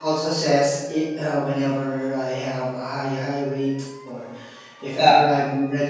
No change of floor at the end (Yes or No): Yes